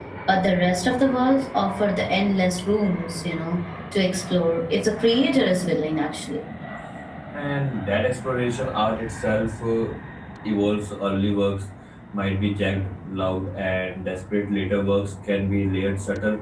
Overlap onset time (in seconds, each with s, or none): none